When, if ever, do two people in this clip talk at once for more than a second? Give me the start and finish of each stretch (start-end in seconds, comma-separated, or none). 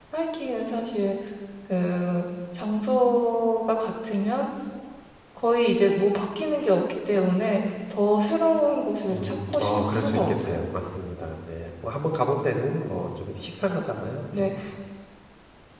9.1-10.6